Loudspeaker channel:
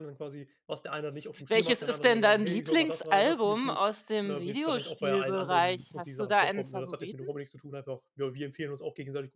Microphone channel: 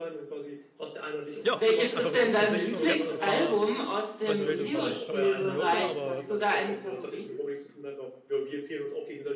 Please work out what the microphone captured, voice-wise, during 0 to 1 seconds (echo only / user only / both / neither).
echo only